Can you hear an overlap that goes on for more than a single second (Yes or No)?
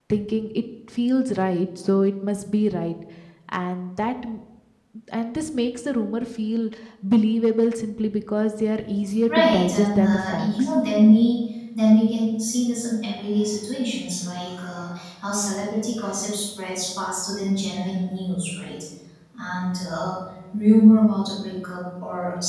Yes